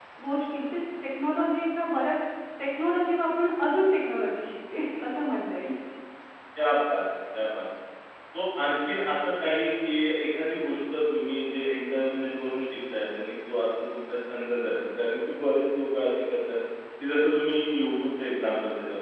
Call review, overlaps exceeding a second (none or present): none